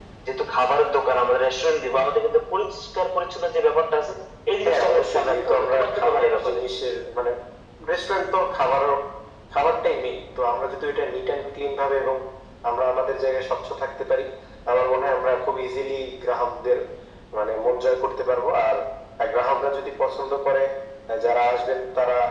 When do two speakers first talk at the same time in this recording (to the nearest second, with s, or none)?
5 s